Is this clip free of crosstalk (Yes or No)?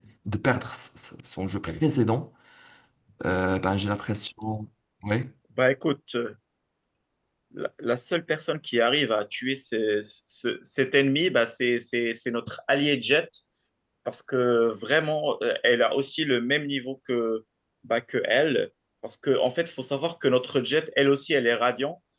Yes